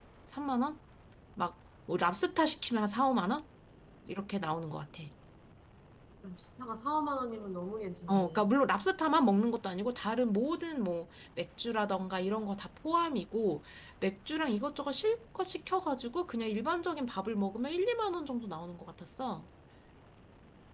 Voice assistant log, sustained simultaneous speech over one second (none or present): none